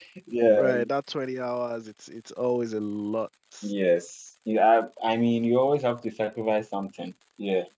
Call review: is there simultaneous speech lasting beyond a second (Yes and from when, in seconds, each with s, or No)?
No